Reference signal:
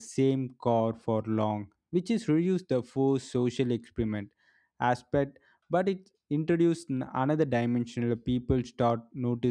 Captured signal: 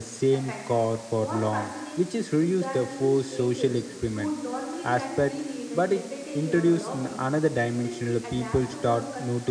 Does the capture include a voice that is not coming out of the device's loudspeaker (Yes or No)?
Yes